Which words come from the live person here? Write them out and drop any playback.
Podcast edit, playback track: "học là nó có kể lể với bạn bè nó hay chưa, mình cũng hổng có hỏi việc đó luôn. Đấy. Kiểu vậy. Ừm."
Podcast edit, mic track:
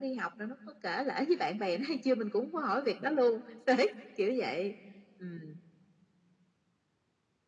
none

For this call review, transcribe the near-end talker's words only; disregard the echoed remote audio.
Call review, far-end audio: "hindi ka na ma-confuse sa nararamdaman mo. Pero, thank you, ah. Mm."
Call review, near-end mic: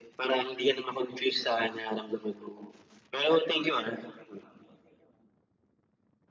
none

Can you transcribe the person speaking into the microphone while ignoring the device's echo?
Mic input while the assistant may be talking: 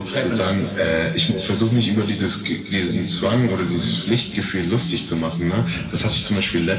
none

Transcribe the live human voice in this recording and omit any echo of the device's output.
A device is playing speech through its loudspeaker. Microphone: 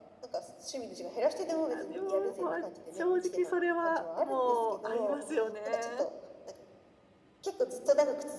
いや、でも、まあ。正直それはもう、ありますよね。

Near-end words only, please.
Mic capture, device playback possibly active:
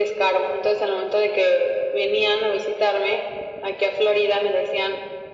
none

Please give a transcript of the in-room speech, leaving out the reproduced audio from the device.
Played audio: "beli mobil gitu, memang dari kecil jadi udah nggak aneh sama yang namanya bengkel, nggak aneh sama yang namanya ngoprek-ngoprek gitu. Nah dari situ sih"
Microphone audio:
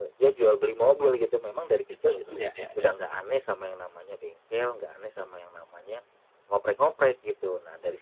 Betul betul, ya ya ya.

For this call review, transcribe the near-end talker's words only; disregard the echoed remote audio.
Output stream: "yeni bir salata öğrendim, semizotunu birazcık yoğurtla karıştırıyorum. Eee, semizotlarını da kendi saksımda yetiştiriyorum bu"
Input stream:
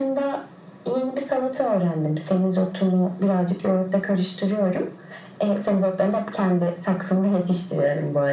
none

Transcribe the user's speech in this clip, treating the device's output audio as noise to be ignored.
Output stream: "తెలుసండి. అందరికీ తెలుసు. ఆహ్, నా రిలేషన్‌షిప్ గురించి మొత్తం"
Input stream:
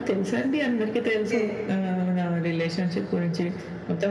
ఓకే.

